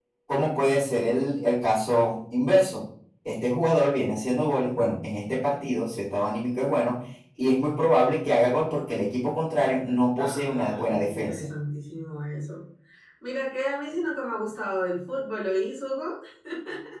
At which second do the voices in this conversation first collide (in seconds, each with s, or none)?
10.2 s